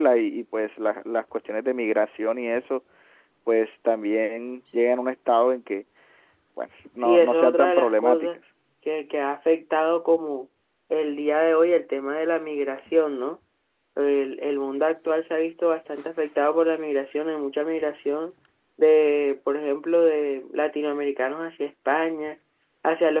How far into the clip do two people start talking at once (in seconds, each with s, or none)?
7.0 s